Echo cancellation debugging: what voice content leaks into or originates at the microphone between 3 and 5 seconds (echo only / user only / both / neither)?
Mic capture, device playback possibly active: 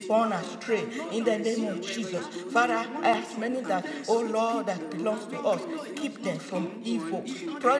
both